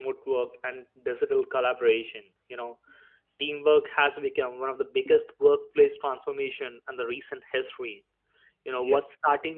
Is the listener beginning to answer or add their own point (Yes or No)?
No